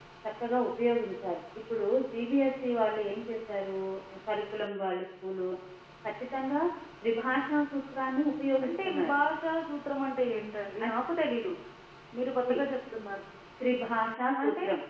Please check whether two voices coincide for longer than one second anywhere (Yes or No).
No